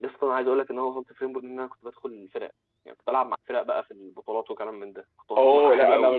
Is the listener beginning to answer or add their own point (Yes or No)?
Yes